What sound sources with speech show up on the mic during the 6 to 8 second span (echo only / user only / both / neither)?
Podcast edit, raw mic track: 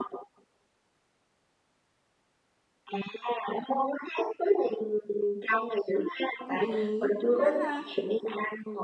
both